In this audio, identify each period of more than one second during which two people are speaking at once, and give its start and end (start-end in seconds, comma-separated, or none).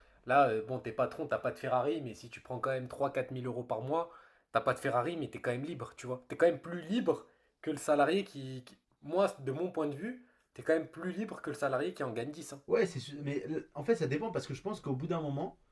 none